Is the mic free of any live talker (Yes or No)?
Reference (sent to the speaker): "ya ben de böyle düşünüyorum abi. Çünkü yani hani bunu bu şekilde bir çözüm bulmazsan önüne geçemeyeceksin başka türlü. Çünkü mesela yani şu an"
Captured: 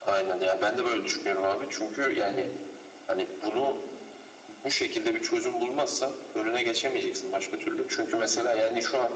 No